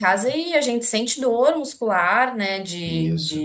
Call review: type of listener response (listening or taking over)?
listening